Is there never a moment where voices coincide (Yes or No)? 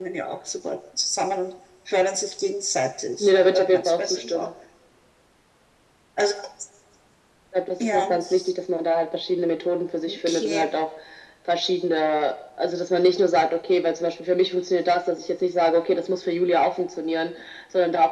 No